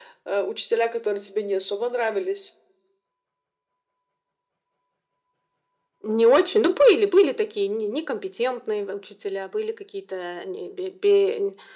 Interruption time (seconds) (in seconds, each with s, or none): none